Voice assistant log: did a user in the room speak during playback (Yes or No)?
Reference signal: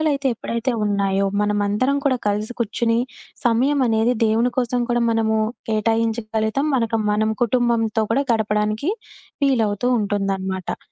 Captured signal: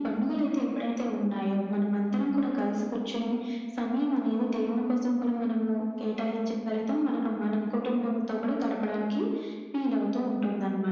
No